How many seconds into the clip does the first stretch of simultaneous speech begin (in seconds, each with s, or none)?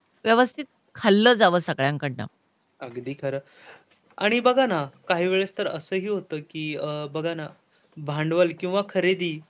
none